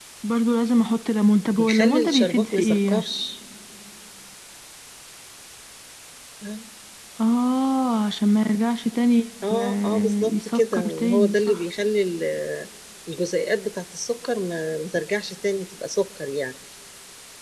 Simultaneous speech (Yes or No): Yes